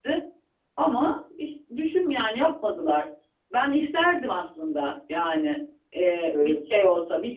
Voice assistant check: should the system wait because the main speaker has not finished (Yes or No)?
Yes